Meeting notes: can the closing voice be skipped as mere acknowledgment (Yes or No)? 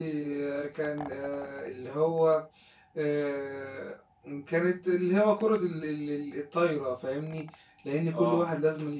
Yes